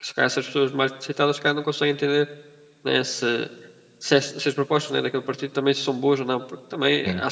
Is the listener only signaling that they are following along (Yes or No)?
Yes